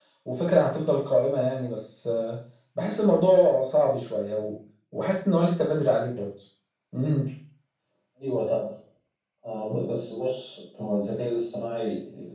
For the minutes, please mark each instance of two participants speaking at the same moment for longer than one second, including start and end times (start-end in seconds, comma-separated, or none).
none